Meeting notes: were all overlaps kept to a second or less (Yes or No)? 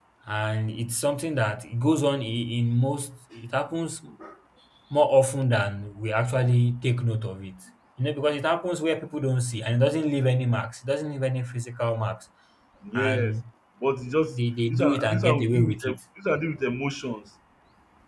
No